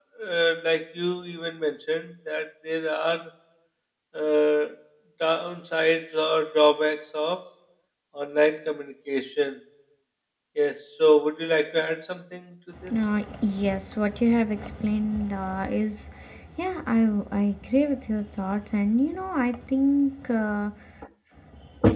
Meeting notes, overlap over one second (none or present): none